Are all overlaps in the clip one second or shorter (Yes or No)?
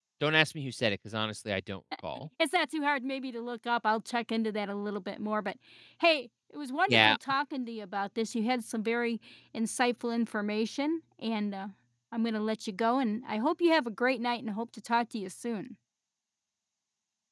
Yes